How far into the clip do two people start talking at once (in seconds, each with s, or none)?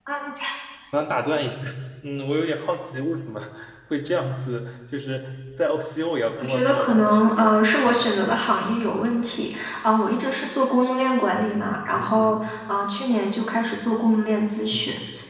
6.4 s